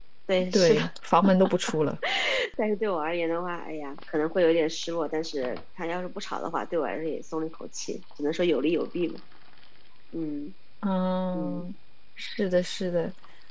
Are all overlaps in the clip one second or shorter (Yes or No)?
Yes